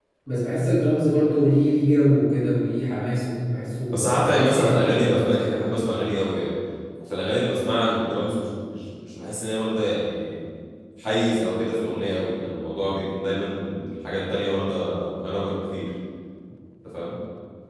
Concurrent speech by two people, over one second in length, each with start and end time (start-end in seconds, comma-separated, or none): 3.9-5.5